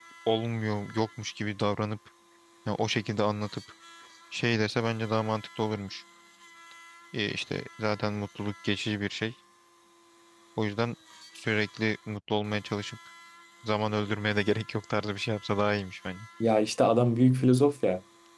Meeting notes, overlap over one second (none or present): none